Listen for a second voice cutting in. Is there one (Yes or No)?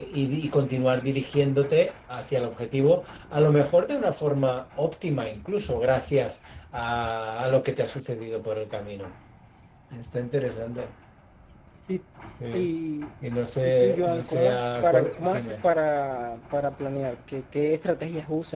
Yes